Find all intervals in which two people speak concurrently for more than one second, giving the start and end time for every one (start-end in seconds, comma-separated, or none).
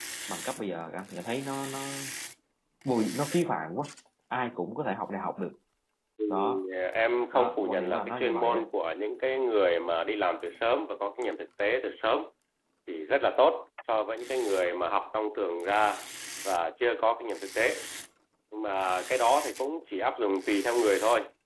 7.3-8.6